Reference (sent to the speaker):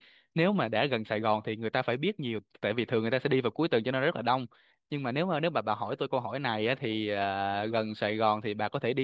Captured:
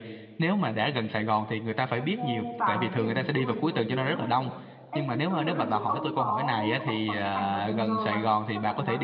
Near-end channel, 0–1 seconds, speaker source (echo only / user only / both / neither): echo only